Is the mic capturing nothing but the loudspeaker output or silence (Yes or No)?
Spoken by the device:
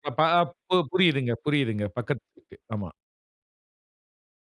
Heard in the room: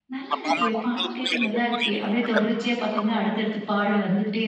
No